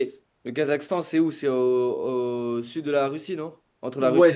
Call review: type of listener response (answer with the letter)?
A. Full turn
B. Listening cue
A